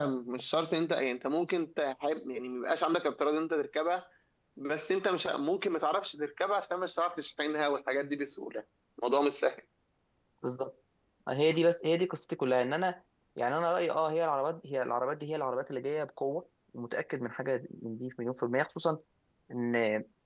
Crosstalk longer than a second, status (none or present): none